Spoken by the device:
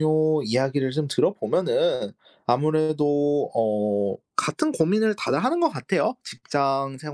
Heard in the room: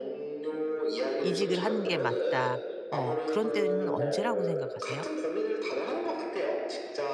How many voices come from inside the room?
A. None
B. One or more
B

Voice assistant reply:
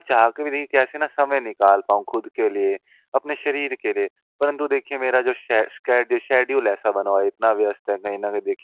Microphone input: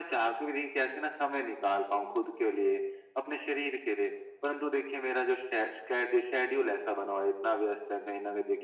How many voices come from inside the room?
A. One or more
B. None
B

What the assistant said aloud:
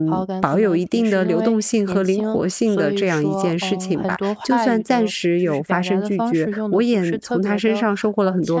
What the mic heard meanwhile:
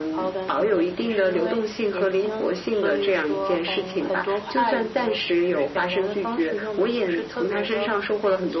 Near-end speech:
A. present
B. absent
B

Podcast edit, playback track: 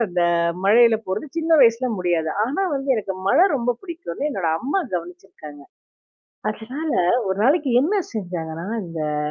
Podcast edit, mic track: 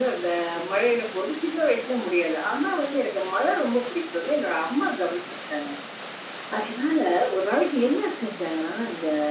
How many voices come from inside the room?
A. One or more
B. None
B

